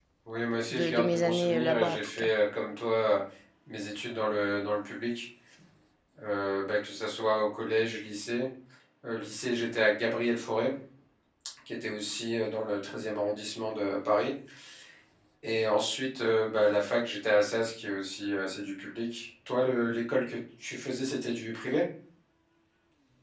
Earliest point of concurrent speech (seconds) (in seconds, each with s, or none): 0.7 s